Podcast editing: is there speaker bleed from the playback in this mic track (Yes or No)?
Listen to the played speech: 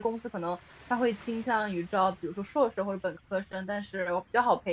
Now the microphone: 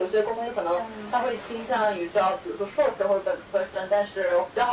Yes